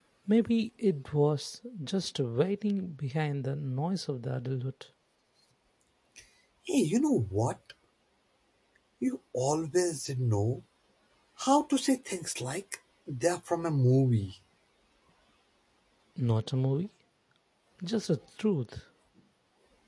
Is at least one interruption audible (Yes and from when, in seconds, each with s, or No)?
No